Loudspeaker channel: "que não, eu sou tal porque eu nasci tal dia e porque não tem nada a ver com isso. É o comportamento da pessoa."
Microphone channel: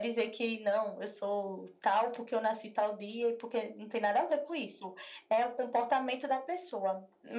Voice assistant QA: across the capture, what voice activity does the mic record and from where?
echo only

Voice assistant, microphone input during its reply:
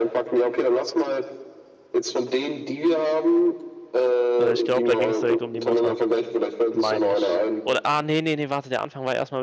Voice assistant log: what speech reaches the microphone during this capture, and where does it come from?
both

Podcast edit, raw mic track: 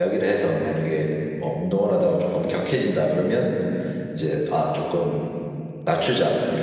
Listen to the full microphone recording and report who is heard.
user only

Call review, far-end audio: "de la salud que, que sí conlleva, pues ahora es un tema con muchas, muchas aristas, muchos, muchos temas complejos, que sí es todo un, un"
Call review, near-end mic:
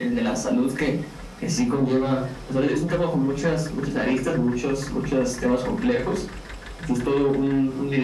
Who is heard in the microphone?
echo only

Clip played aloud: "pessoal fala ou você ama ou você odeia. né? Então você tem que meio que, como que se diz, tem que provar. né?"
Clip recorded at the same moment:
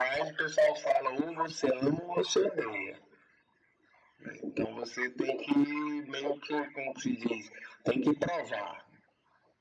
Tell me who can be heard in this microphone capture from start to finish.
echo only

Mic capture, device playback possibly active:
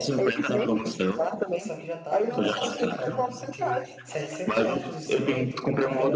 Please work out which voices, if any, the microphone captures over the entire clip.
both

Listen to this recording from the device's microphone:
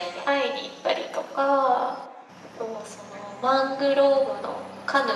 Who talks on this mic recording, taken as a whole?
echo only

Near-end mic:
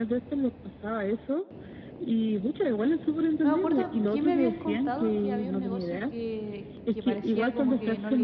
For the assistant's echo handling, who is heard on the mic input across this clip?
both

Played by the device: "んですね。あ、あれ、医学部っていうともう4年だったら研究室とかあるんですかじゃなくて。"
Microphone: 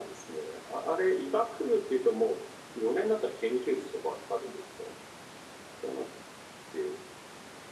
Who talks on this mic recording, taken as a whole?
echo only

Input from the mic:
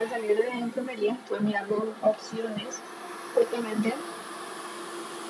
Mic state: echo only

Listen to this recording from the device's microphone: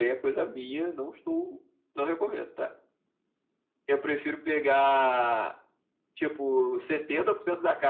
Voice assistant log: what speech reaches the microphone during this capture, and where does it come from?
echo only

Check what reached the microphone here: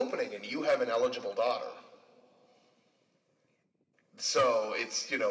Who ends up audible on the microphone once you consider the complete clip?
echo only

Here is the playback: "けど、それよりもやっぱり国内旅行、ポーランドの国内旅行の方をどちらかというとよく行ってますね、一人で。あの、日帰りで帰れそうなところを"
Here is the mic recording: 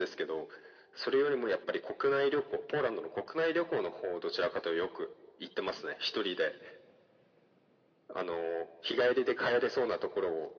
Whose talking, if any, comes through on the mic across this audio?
echo only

